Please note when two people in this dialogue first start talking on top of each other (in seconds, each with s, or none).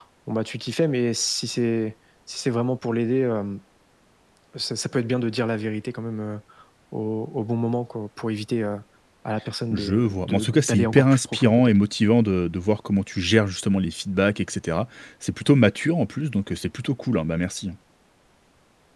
9.7 s